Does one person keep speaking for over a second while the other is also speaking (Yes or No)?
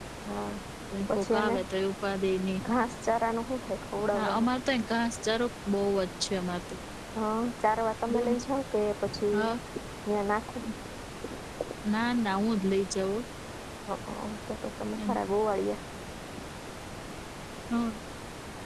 No